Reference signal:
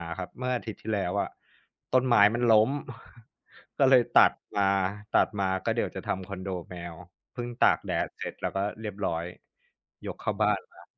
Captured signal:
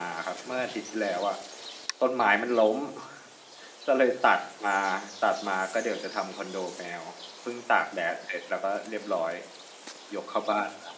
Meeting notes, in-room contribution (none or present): none